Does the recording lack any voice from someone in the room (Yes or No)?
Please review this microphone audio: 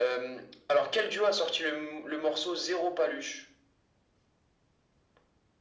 Yes